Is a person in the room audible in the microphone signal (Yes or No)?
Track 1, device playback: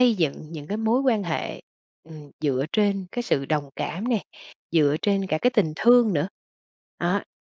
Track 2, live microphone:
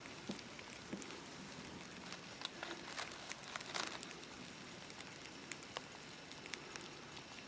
No